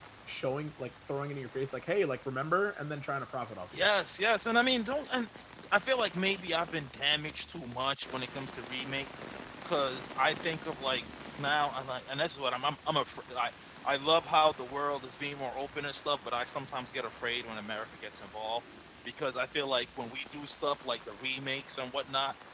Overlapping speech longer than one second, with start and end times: none

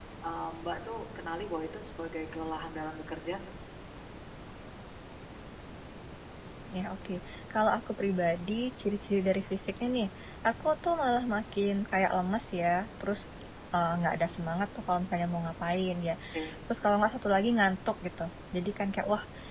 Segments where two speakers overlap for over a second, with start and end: none

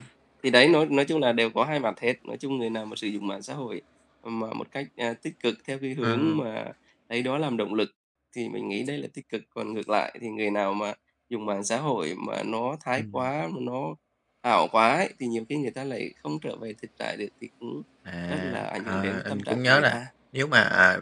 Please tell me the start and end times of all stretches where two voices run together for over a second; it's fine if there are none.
18.3-20.0

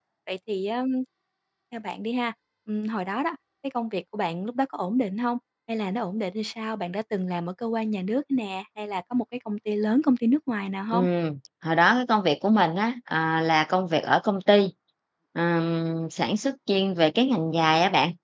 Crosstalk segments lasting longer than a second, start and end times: none

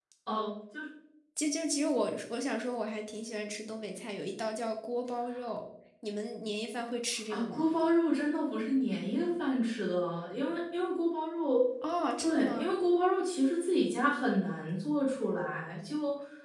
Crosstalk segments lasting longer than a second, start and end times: none

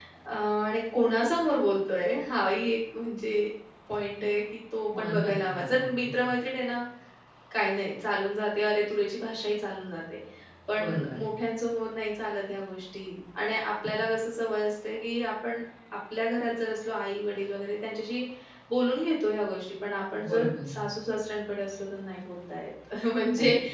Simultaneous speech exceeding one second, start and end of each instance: 5.0-6.2

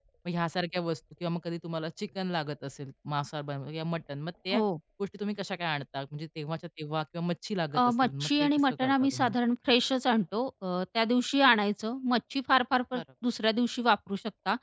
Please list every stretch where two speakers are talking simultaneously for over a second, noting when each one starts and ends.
7.7-9.3

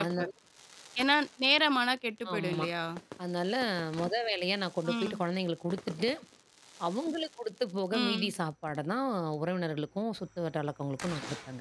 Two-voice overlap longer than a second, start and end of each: none

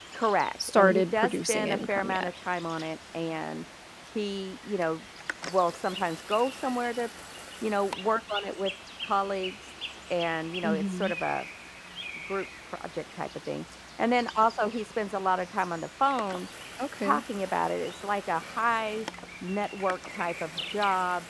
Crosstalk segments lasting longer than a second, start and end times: 0.7-2.3

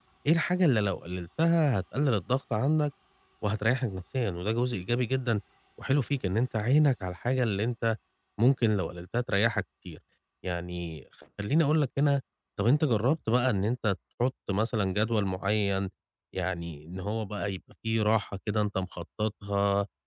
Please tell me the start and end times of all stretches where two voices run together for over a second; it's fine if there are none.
none

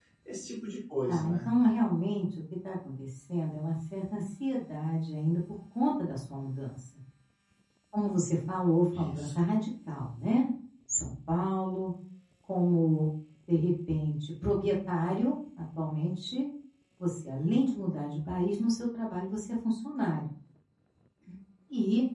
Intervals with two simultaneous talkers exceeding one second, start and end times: none

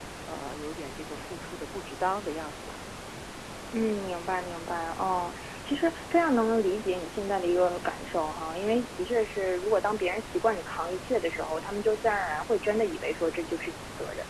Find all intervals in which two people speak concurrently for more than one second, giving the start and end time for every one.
none

